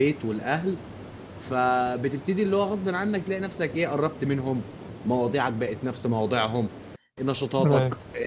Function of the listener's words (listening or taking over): listening